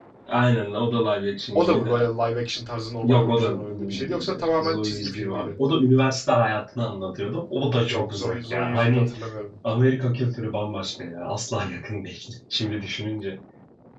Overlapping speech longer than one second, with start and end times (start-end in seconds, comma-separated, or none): 3.0-5.5, 7.9-9.1